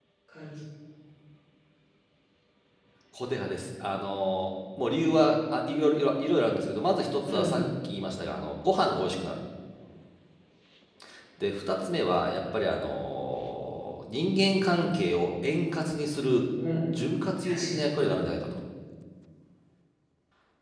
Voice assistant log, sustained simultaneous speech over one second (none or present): none